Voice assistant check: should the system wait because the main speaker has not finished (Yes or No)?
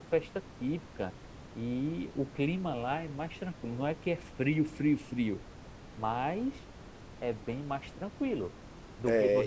No